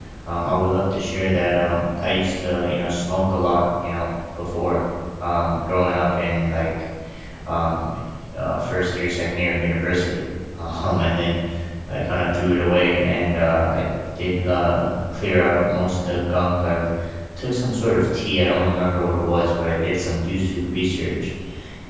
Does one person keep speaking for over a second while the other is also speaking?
No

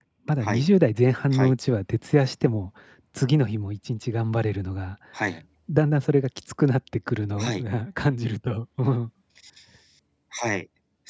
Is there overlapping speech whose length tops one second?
No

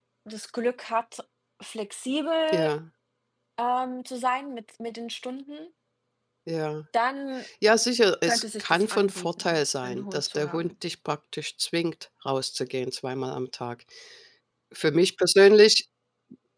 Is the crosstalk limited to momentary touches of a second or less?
No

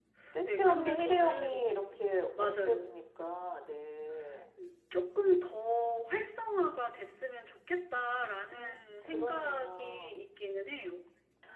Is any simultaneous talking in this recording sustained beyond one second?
Yes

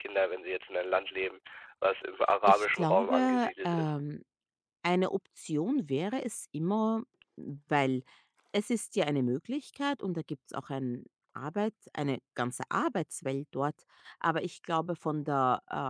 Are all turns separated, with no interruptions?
No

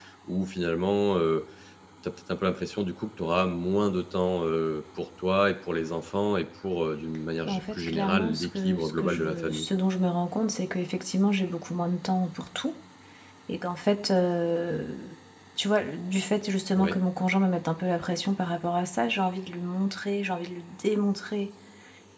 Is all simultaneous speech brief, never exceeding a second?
No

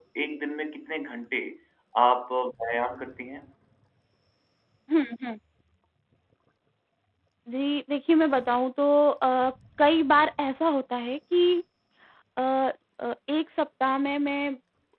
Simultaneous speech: No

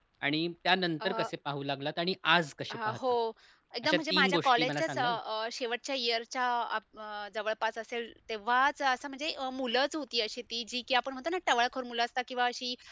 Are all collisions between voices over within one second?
No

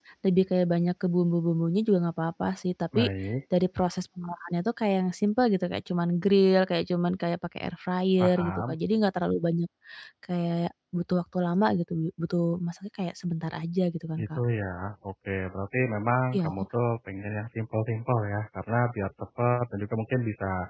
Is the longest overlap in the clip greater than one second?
No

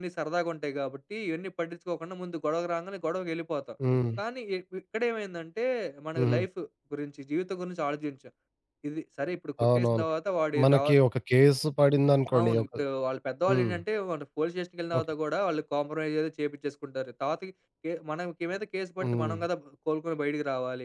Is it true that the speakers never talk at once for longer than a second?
Yes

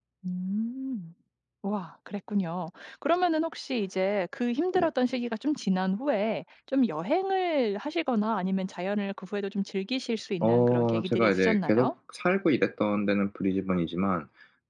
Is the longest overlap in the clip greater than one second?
Yes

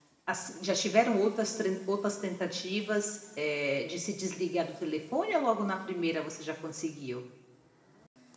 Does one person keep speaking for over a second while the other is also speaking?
No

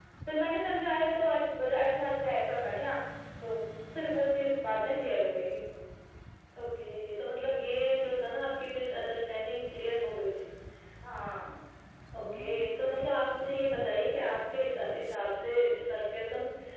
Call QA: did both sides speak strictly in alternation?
Yes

